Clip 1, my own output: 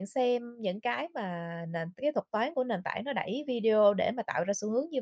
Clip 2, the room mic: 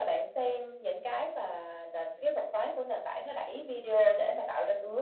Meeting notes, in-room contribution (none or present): none